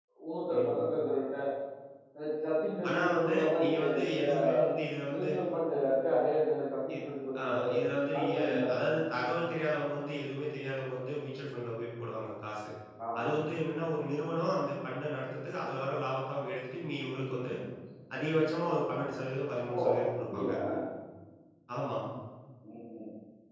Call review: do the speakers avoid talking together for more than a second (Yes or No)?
No